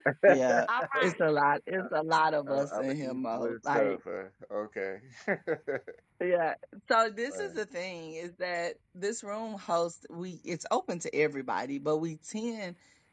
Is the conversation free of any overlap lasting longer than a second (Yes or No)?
No